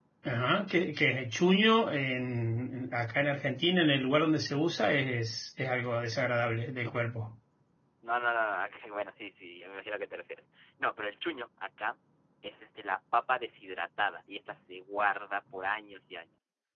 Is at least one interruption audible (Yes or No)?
No